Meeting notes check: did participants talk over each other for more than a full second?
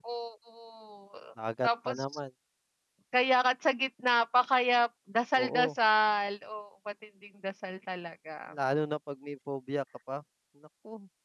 No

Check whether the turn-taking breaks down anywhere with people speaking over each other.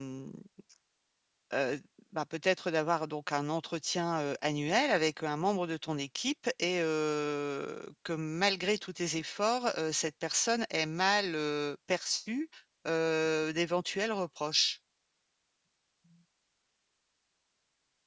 No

